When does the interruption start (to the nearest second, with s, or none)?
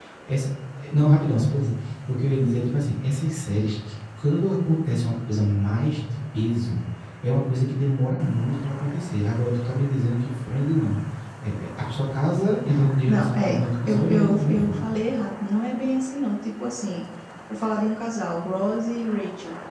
13 s